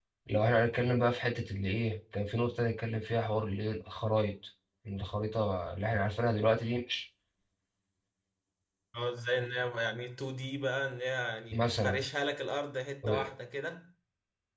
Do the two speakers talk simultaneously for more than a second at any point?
No

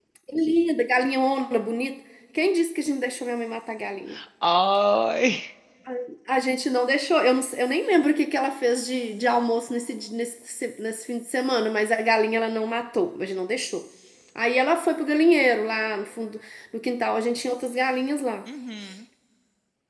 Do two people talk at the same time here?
No

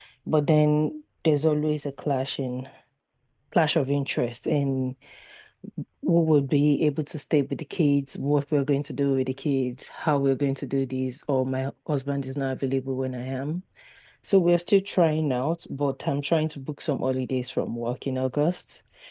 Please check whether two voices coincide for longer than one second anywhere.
No

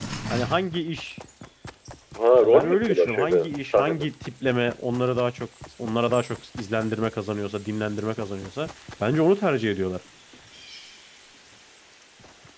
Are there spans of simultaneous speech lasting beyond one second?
Yes, from 2.4 s

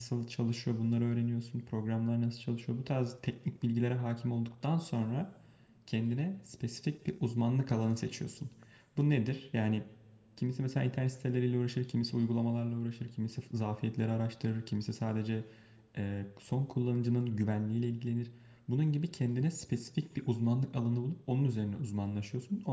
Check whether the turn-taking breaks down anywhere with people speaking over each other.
No

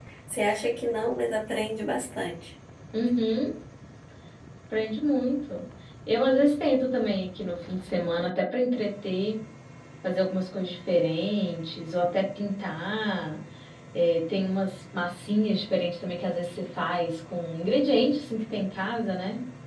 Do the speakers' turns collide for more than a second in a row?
No

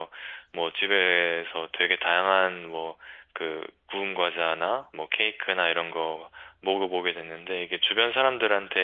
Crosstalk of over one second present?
No

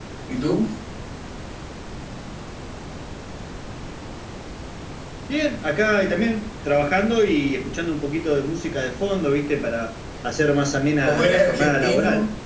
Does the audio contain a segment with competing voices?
Yes, from 11.0 s

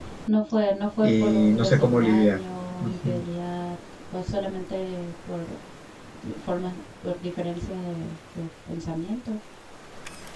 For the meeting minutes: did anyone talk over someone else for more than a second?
Yes, from 1.0 s

